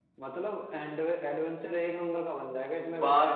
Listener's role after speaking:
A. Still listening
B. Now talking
B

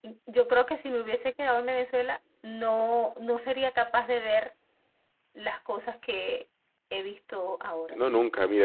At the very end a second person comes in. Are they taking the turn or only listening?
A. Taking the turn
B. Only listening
A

